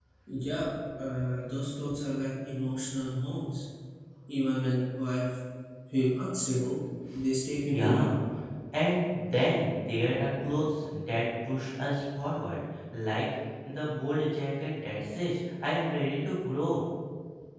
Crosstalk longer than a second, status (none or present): none